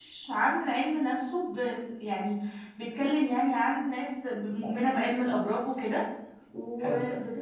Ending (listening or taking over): listening